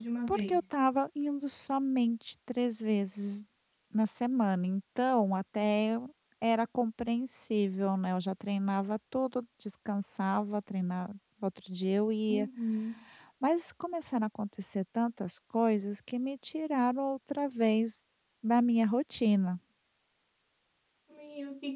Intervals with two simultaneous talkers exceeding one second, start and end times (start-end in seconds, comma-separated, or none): none